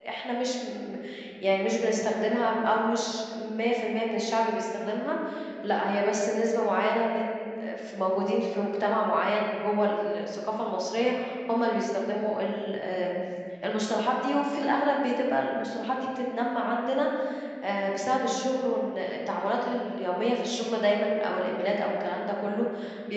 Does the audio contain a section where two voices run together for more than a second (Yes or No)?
No